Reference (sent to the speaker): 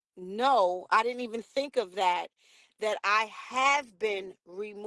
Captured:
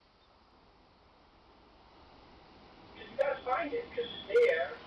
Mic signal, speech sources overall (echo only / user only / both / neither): user only